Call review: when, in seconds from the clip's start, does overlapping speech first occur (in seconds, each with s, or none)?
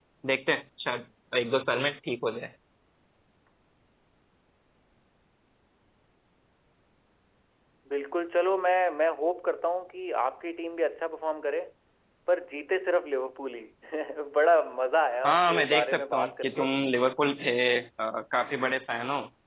15.2 s